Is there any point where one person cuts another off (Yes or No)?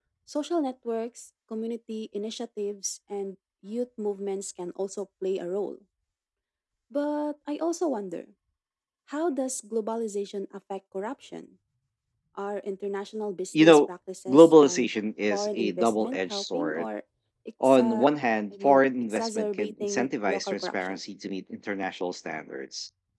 Yes